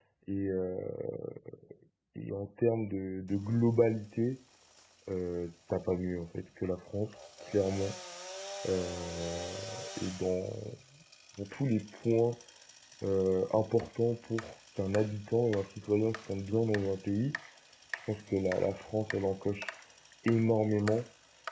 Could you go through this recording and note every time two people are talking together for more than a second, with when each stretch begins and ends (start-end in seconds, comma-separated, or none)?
none